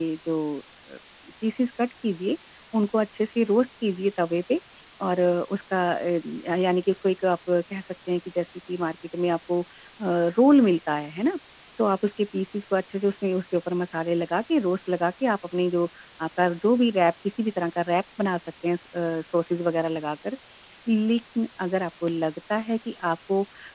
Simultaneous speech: No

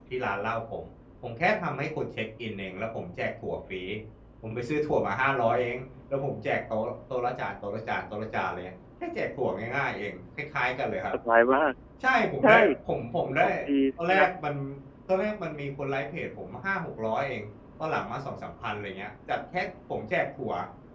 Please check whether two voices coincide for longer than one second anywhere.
No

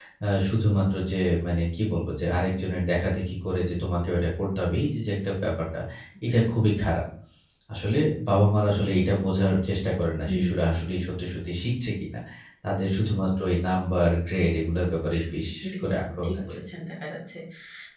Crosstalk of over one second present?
Yes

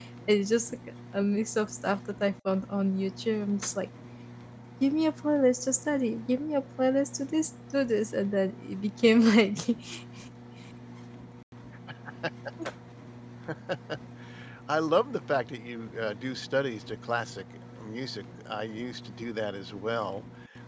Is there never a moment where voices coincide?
Yes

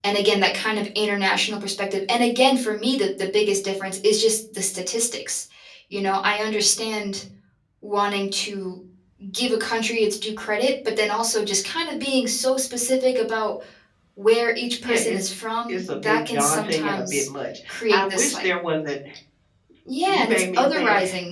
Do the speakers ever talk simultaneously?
Yes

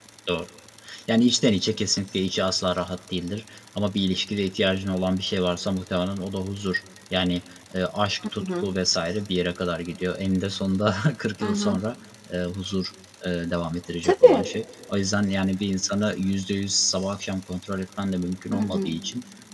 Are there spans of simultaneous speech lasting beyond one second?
No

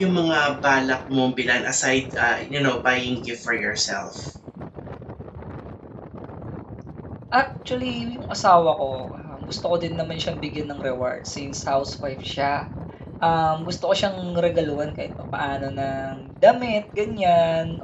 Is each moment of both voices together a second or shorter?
Yes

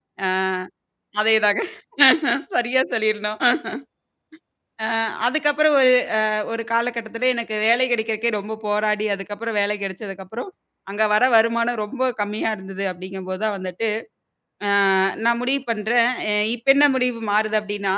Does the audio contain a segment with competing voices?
No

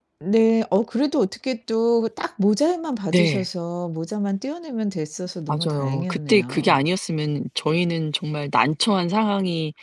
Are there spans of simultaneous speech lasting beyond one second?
Yes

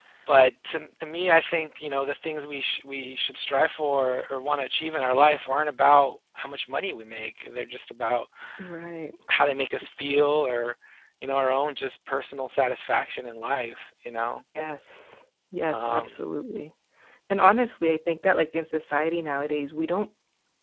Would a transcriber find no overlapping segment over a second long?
Yes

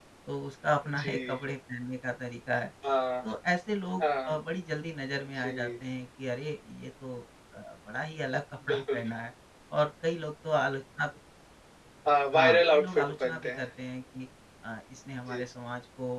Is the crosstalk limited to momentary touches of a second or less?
No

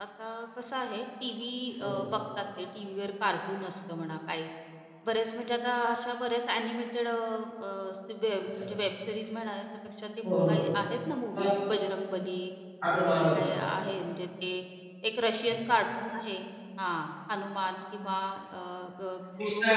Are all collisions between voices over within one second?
Yes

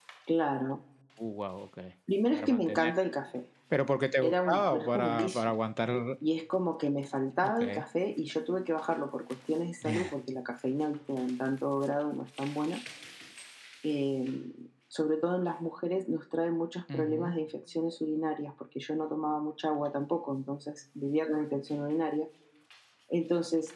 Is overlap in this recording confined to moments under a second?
No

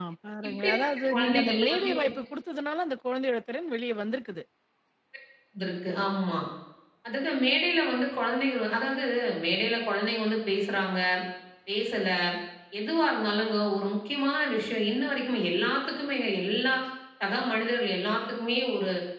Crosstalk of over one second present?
Yes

